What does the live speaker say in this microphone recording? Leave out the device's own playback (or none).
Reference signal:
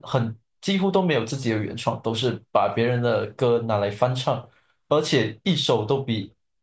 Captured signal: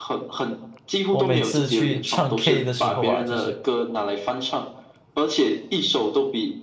我每次去唱 K 的时候啊，就是